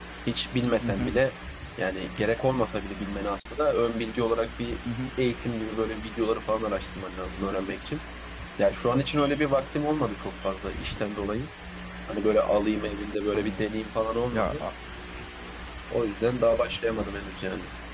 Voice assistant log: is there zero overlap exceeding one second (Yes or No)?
Yes